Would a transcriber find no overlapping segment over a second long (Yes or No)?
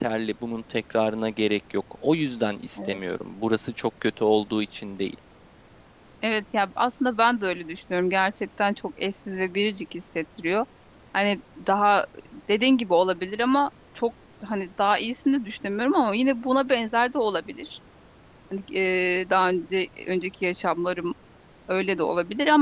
Yes